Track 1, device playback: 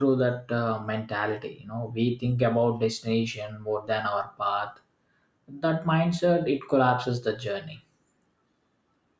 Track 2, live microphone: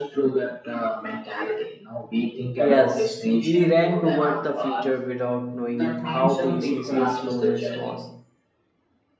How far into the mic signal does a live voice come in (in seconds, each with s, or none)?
2.6 s